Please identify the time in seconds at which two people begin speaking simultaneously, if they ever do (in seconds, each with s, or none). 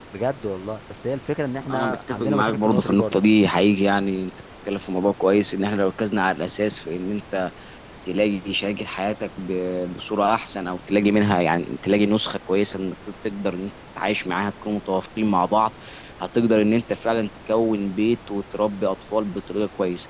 1.7 s